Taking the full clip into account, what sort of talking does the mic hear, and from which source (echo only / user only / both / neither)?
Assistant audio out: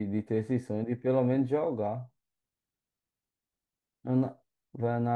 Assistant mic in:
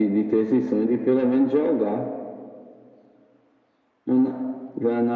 echo only